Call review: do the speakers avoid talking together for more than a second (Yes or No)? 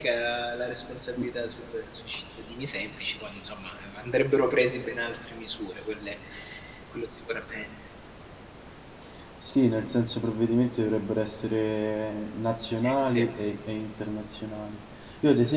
Yes